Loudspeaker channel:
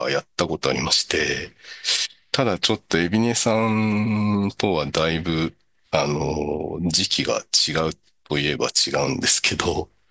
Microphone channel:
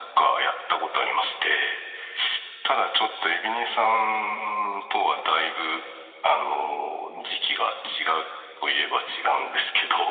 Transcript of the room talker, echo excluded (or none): none